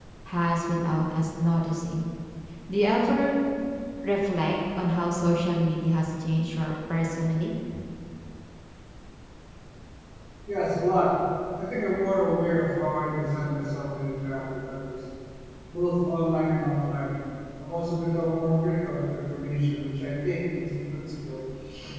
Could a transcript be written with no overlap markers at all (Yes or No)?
Yes